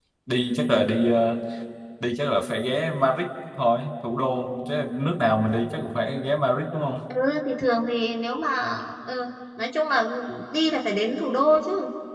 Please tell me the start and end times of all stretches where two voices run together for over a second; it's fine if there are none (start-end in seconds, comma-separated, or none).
none